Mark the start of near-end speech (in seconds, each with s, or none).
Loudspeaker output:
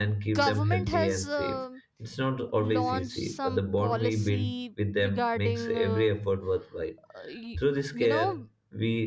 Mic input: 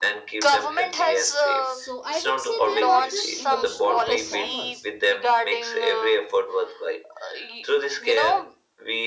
1.6 s